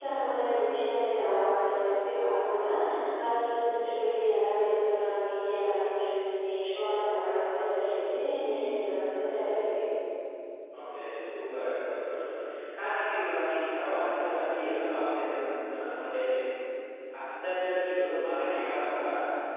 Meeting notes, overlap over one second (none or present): none